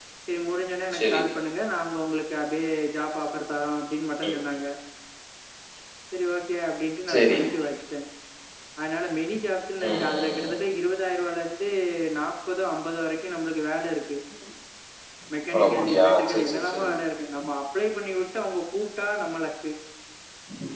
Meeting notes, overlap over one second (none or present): present